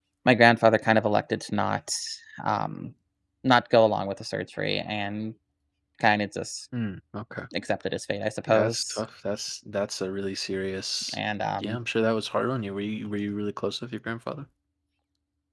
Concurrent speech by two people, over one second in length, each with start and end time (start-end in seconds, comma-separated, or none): none